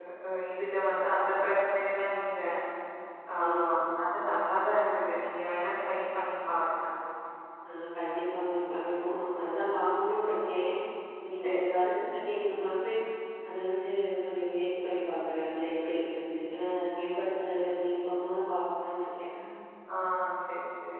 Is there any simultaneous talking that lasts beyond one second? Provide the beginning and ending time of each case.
none

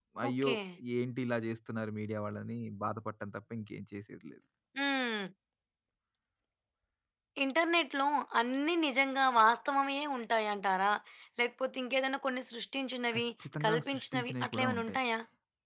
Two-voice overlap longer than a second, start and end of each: 13.7-15.0

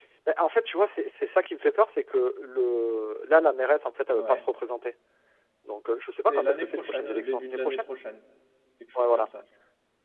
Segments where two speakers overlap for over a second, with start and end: 6.3-7.9

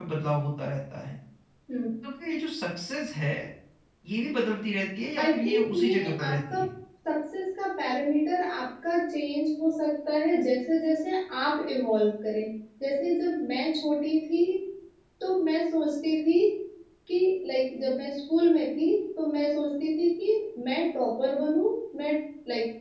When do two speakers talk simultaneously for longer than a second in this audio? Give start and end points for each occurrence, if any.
5.2-6.6

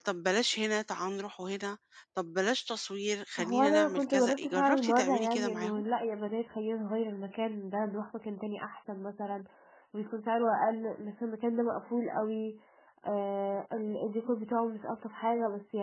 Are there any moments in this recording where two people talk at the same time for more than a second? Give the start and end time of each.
3.4-5.8

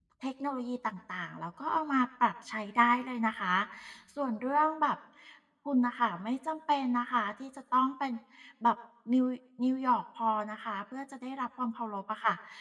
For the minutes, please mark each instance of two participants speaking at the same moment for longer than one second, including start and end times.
none

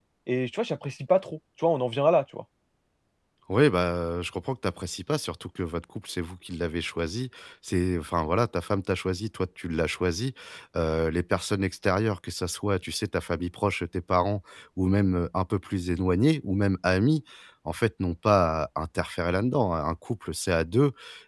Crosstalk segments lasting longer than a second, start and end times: none

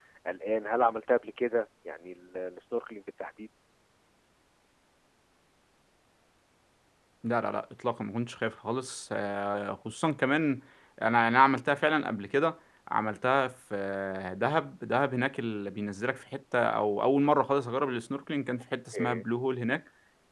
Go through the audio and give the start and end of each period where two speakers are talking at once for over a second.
none

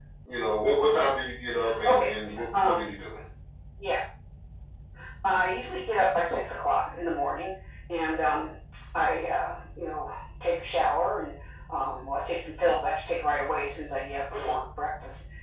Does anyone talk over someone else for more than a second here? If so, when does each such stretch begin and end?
none

